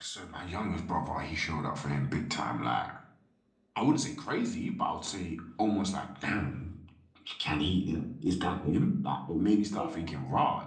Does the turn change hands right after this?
No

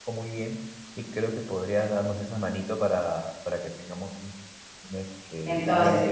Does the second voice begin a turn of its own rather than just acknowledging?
Yes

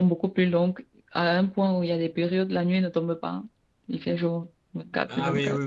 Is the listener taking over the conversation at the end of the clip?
Yes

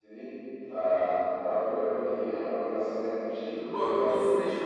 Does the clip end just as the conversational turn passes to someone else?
Yes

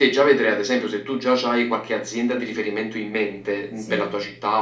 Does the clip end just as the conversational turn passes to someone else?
No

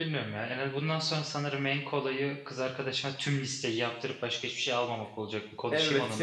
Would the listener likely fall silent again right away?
No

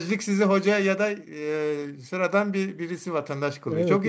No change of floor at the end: No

